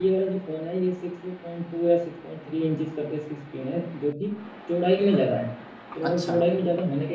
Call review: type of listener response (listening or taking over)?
listening